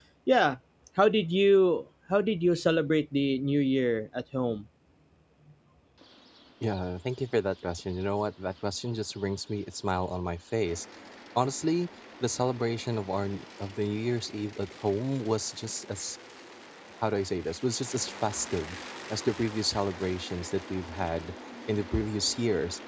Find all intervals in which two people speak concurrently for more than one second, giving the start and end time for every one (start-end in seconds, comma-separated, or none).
none